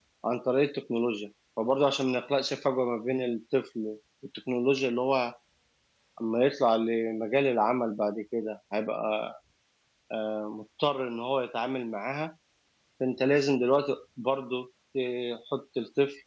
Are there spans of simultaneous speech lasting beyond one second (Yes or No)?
No